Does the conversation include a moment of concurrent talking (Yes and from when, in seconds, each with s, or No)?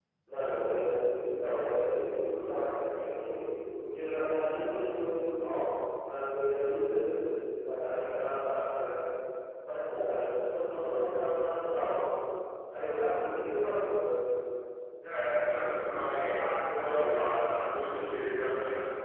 No